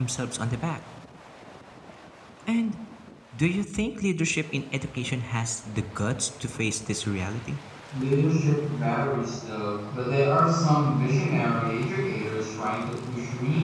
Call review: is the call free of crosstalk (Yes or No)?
Yes